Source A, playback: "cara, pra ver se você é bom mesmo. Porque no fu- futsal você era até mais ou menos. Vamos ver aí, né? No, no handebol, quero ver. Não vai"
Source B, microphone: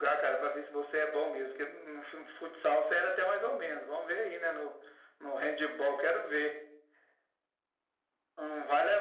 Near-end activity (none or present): none